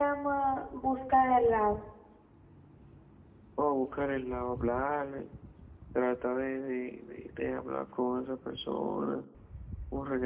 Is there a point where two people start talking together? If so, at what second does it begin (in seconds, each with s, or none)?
none